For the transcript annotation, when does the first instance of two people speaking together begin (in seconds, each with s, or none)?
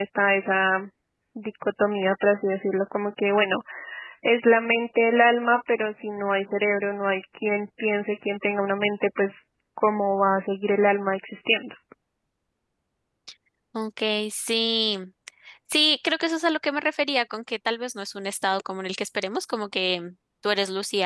none